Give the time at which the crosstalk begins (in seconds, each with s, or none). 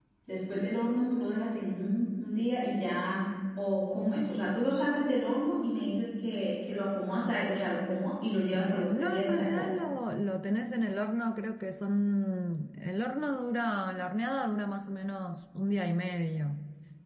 8.5 s